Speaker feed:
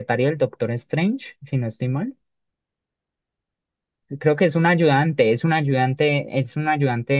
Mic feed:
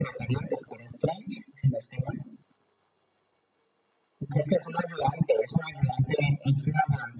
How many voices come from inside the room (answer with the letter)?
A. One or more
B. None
B